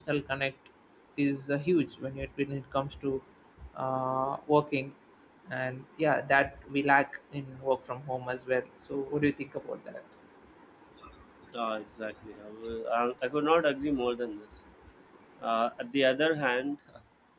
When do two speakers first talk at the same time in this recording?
none

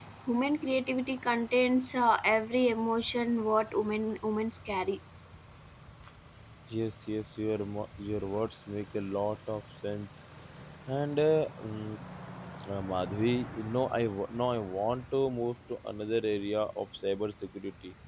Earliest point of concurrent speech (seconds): none

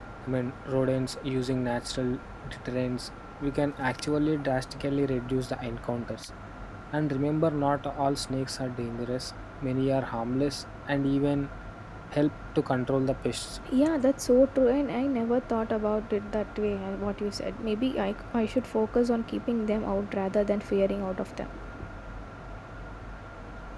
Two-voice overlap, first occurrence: none

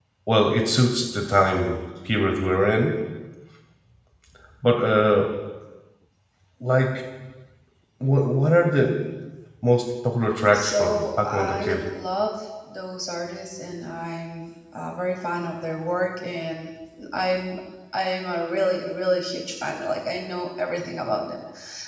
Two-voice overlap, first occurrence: 10.5 s

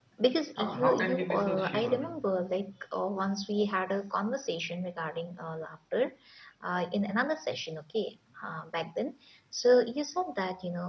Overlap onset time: 0.6 s

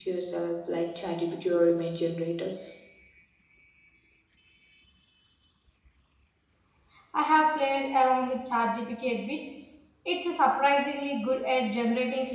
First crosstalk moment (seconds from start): none

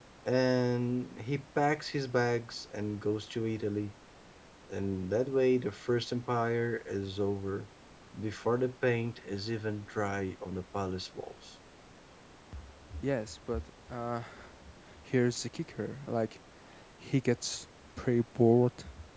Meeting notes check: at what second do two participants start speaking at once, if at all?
none

